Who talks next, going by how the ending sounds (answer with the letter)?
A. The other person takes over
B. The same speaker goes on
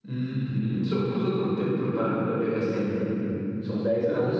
A